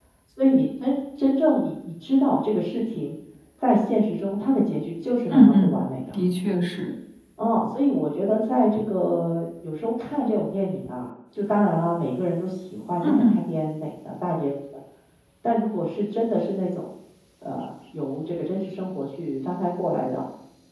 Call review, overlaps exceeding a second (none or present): none